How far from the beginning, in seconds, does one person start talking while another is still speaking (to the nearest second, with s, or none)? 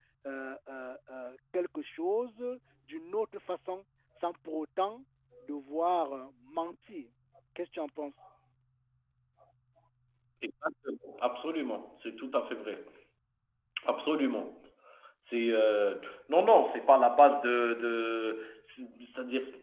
none